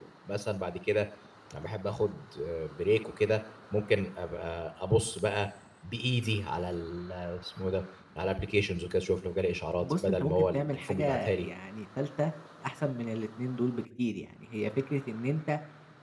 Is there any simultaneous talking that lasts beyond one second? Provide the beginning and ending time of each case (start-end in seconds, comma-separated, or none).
9.8-11.5